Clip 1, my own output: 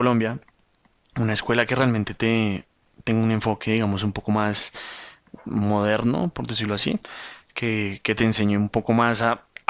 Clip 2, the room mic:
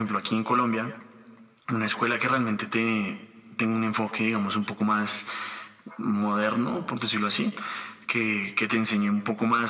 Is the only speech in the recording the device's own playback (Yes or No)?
Yes